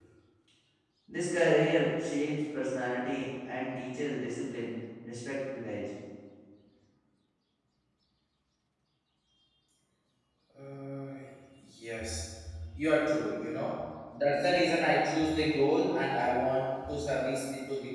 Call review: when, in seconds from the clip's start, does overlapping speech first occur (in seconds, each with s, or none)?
none